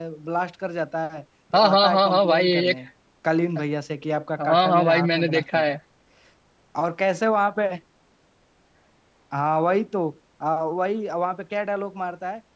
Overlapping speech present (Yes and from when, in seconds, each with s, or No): Yes, from 1.5 s